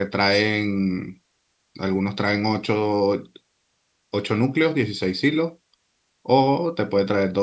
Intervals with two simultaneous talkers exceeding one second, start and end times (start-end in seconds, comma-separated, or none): none